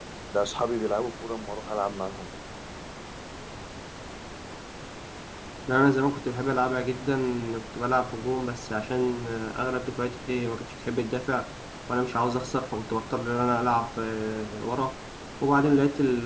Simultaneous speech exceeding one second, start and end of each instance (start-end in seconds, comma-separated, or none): none